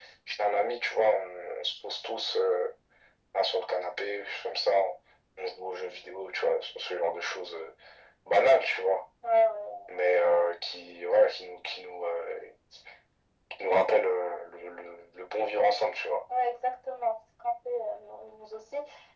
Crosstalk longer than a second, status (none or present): none